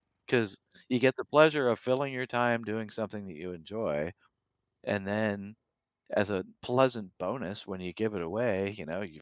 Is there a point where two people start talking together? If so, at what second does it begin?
none

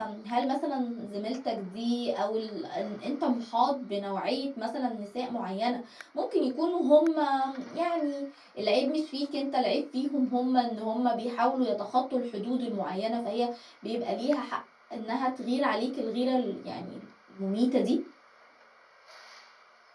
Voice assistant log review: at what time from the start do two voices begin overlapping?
none

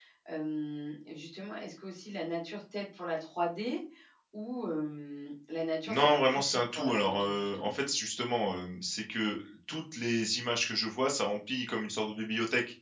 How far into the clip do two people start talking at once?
6 s

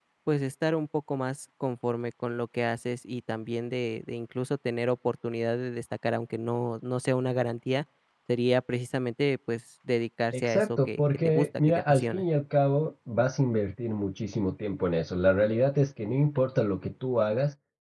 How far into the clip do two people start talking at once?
10 s

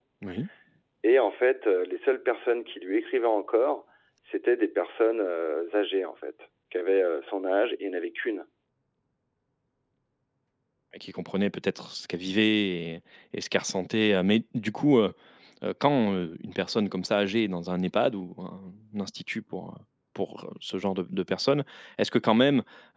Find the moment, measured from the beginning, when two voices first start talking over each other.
none

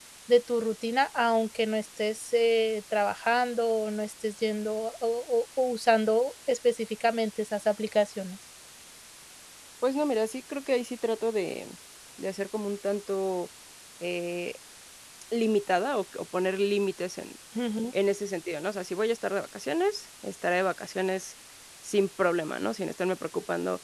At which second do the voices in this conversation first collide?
none

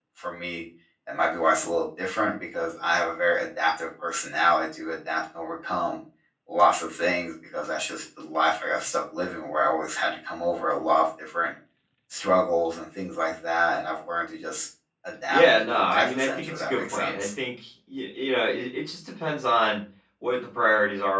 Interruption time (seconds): 15 s

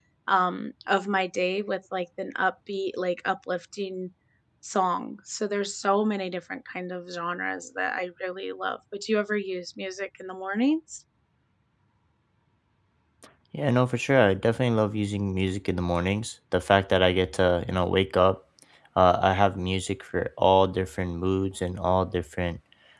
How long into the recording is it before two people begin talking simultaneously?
none

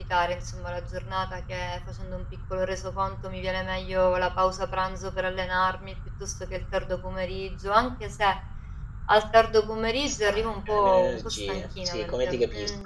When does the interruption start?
10 s

